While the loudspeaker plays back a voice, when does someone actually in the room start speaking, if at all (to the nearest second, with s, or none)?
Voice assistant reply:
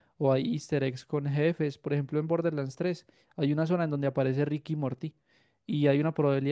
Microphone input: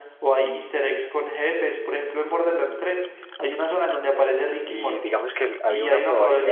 5 s